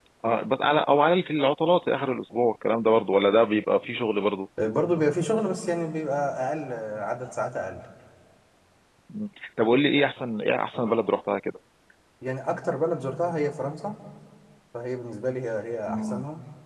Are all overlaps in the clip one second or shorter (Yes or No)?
Yes